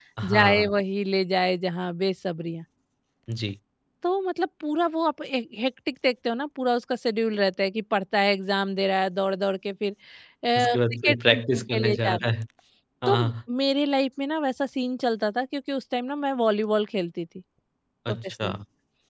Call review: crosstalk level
present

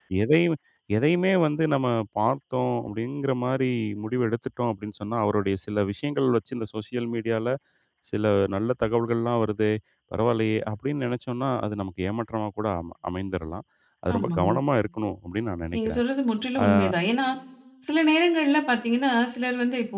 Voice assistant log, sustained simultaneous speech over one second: none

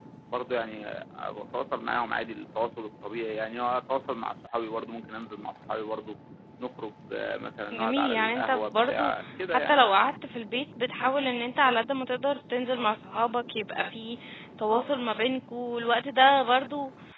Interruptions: present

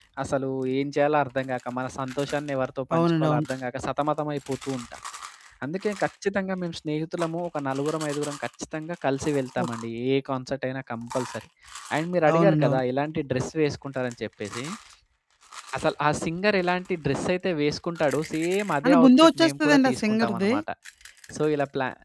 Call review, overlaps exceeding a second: present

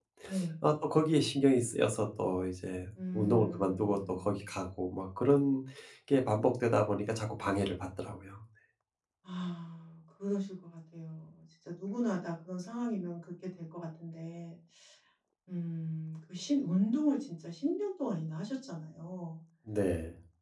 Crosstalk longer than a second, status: present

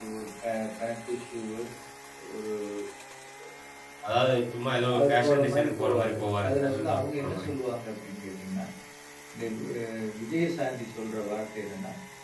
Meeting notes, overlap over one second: present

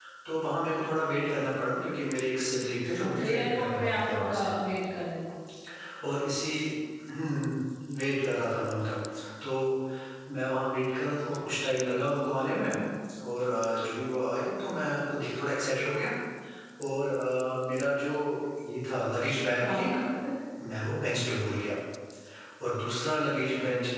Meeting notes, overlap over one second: present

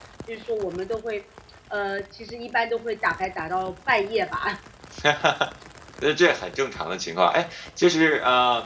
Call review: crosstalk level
none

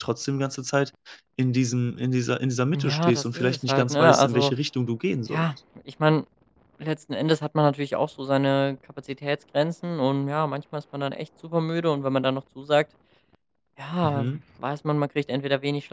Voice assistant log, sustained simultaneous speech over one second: present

